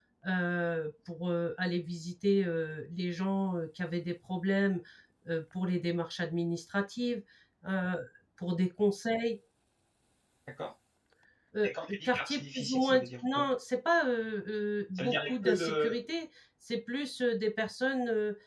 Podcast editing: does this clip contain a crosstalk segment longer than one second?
Yes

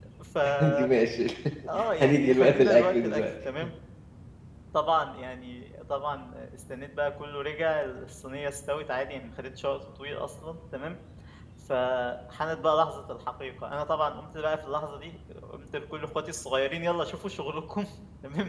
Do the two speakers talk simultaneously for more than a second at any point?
Yes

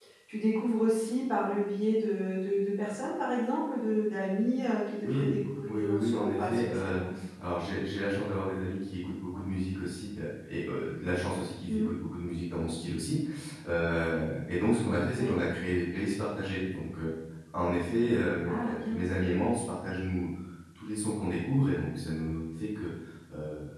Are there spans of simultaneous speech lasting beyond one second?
Yes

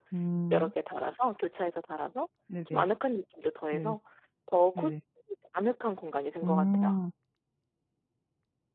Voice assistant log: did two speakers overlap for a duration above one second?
No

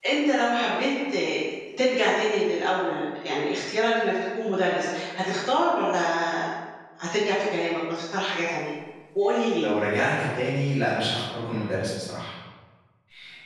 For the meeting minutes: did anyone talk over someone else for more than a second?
No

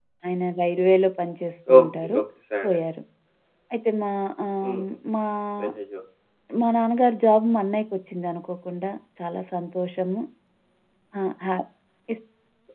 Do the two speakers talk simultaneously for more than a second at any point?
No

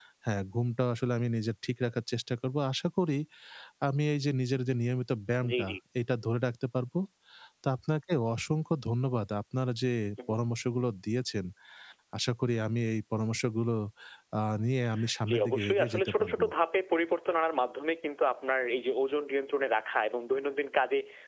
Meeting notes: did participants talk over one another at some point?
Yes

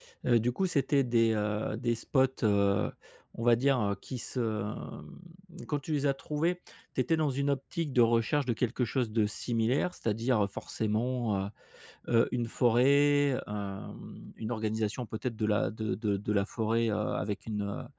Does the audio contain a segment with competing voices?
No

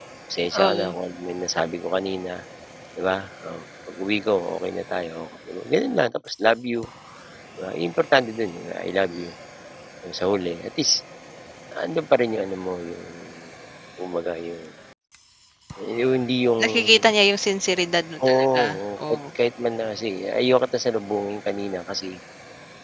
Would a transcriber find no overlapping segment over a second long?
Yes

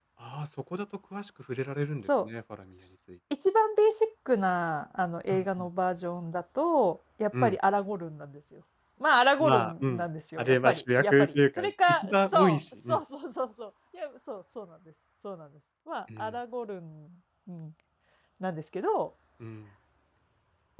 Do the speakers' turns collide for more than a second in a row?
Yes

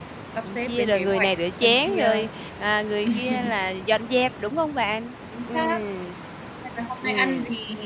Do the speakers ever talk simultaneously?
Yes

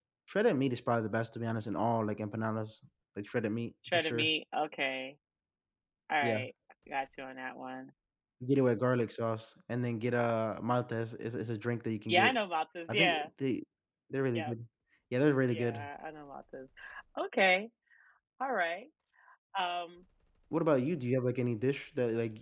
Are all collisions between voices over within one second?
Yes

